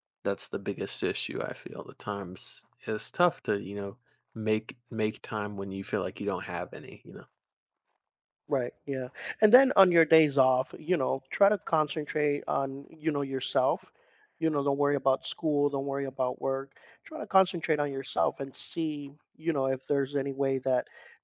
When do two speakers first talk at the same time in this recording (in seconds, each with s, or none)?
none